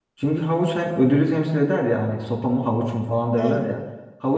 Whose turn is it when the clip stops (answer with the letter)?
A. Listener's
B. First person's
B